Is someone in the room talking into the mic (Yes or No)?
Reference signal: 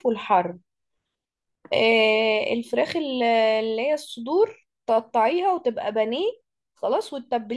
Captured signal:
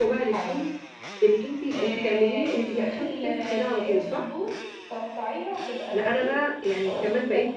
Yes